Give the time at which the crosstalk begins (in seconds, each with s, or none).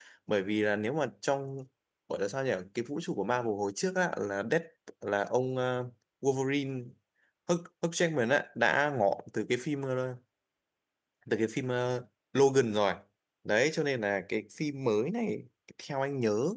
none